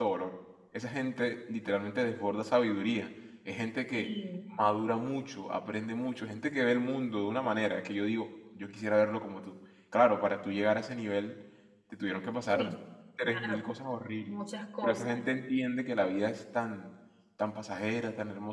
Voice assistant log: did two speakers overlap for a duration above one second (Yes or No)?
No